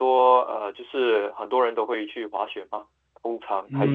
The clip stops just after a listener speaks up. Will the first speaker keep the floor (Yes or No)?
No